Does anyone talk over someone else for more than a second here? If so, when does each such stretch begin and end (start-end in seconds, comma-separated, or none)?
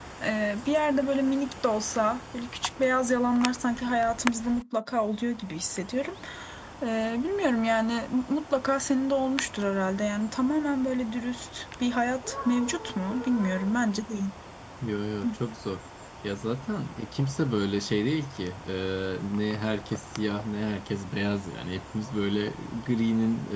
none